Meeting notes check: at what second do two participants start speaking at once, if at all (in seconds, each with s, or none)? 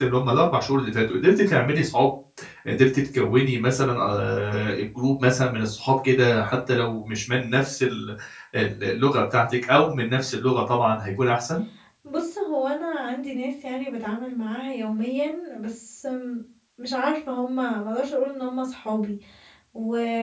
none